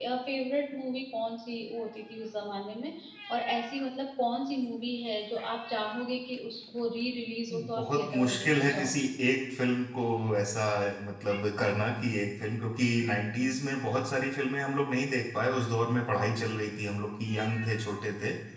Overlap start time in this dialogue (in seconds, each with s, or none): 7.5 s